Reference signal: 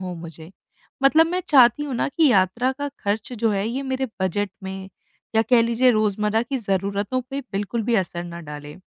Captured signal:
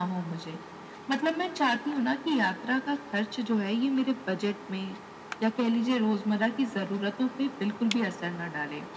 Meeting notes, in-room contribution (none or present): none